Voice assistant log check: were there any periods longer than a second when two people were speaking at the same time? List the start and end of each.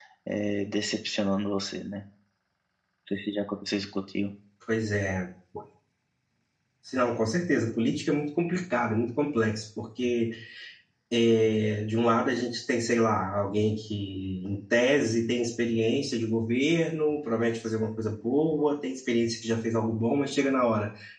none

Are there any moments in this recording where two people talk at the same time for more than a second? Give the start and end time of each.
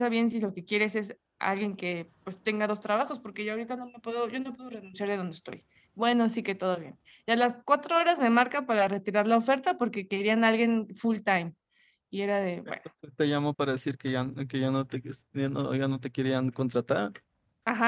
none

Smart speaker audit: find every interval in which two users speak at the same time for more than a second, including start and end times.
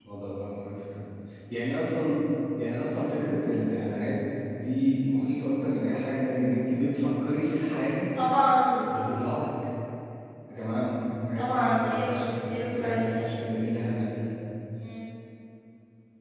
11.4-13.2

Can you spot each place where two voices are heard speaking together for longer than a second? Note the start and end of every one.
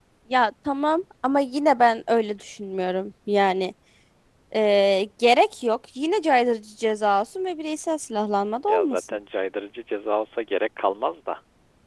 none

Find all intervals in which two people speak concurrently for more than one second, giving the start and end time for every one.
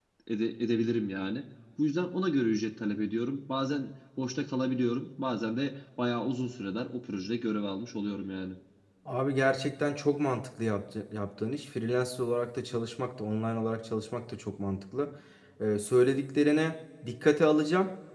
none

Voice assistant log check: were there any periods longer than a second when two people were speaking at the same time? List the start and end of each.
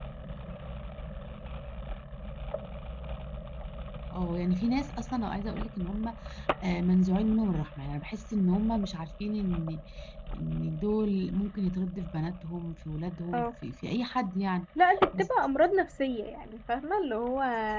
none

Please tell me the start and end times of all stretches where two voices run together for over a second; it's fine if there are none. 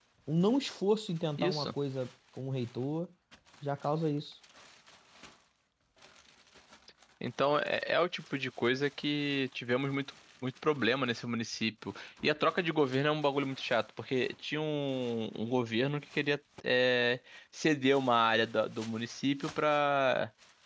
none

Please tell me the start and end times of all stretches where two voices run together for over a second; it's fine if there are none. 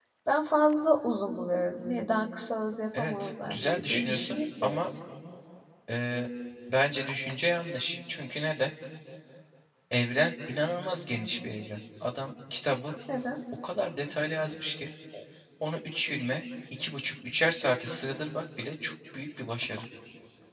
3.0-4.9

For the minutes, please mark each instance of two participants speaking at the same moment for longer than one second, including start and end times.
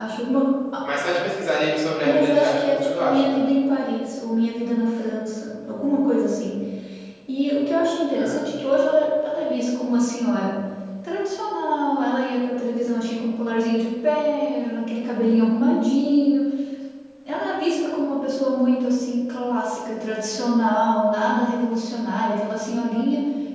2.0-3.4

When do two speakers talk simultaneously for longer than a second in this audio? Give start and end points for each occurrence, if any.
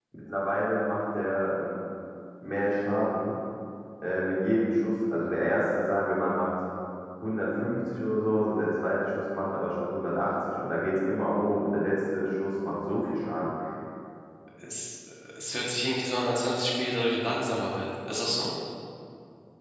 none

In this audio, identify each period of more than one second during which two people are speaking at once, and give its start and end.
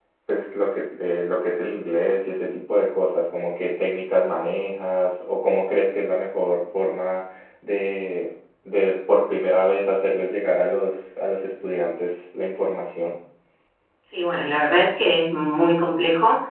none

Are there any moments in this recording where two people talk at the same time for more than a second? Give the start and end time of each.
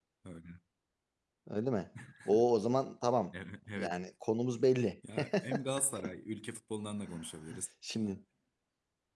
none

